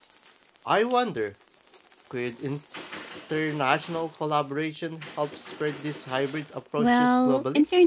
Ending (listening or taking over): taking over